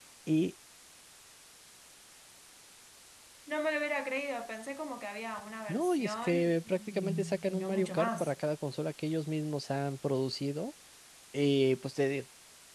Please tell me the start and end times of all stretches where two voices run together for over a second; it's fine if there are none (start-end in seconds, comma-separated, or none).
5.7-8.3